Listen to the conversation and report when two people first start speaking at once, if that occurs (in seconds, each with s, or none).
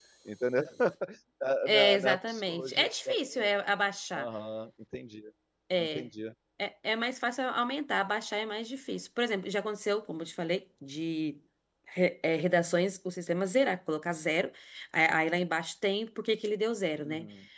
1.7 s